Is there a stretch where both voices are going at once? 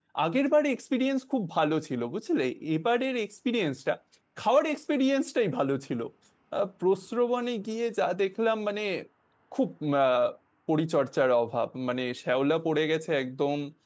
No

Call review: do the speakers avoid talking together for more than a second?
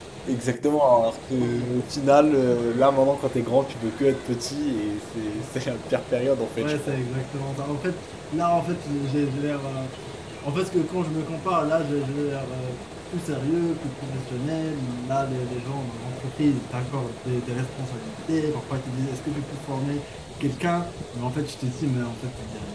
Yes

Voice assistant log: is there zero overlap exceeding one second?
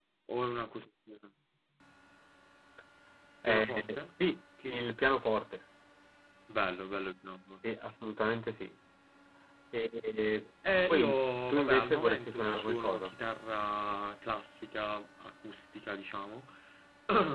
No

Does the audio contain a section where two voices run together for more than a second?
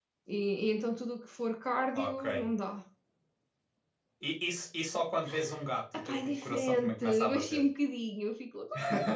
Yes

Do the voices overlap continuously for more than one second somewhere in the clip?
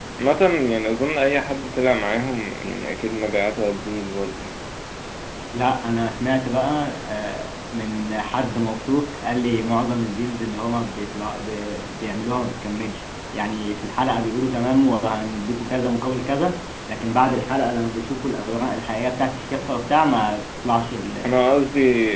No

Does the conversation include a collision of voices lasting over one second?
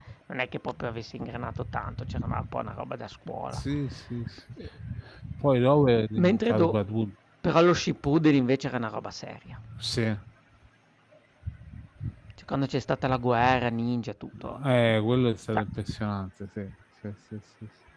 No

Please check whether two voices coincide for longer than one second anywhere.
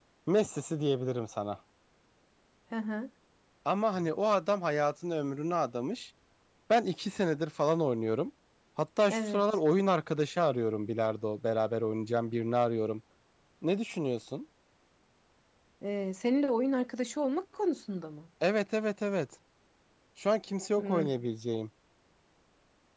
No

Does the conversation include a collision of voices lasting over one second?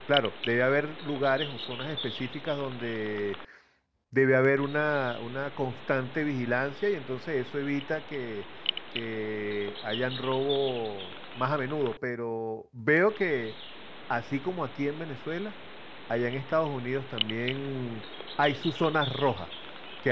No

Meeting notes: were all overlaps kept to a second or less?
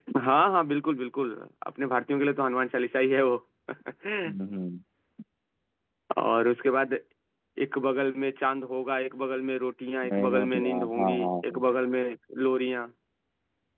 No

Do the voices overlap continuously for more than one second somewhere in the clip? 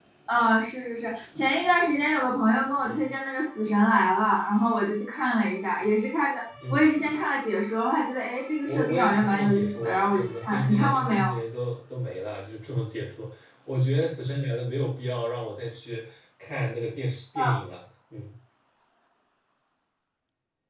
Yes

